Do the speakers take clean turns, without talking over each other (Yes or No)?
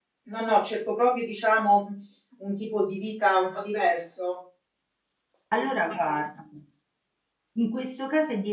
Yes